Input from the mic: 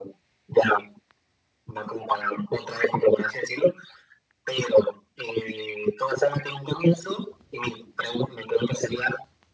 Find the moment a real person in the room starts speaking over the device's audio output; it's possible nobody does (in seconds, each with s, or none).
none